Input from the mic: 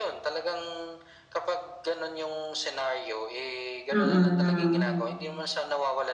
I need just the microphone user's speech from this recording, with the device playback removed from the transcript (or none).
mm.